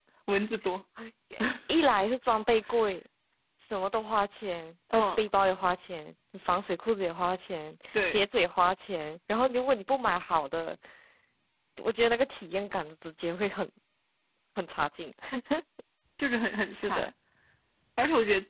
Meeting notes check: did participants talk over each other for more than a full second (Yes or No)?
No